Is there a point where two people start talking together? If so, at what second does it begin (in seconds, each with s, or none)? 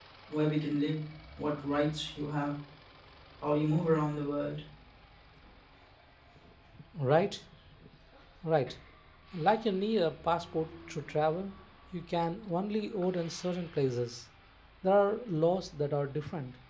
none